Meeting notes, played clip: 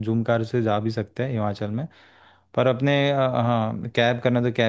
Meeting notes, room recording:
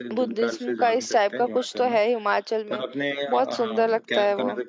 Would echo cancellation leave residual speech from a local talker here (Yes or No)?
Yes